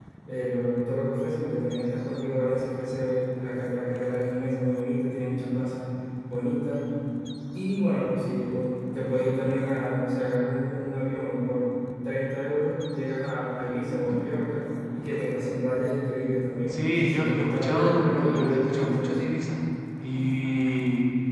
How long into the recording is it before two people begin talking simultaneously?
17 s

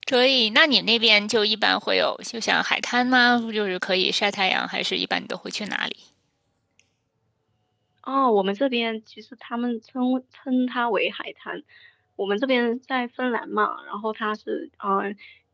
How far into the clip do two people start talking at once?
none

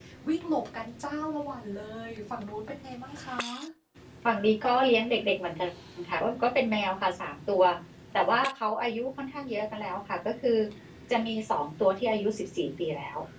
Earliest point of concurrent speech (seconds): none

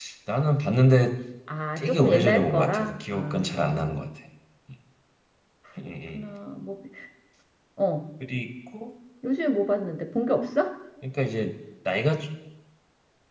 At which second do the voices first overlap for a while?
2 s

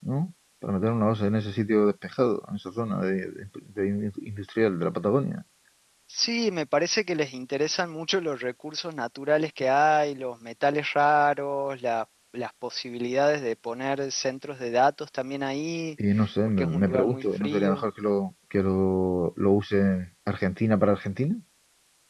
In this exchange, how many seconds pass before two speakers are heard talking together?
17 s

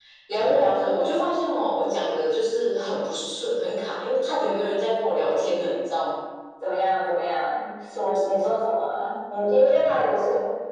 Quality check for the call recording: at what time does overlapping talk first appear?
none

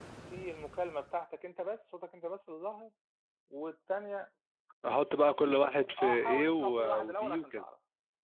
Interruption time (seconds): 6 s

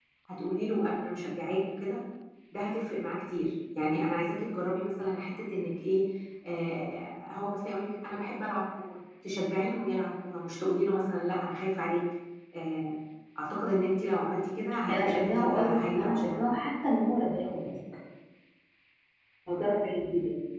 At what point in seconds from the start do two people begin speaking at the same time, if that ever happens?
15 s

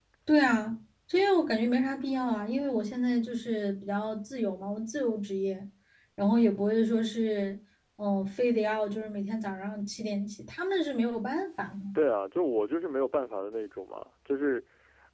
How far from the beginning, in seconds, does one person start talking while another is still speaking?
none

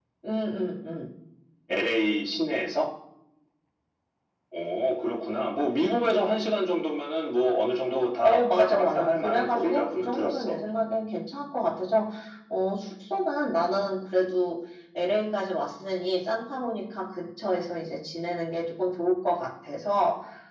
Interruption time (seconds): 8 s

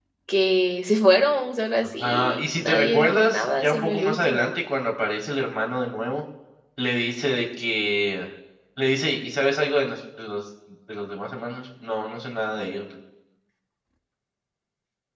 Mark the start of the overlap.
2 s

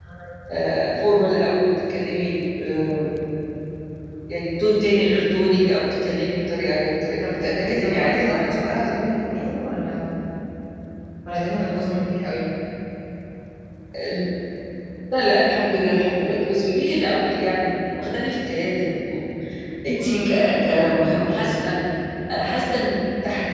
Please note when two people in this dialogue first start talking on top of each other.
7 s

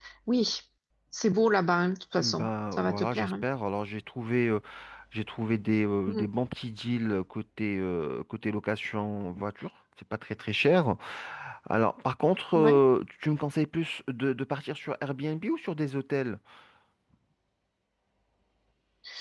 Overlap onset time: 2 s

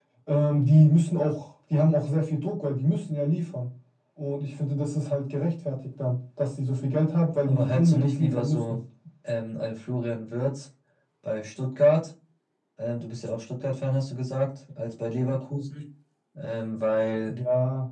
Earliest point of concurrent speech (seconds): 7 s

